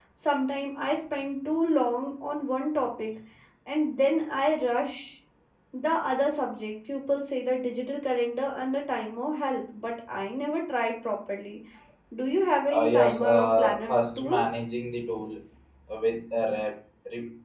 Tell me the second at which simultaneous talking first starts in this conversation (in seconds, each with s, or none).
12.7 s